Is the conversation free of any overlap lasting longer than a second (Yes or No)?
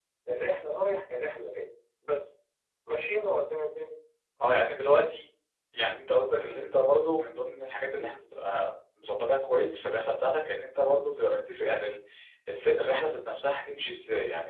Yes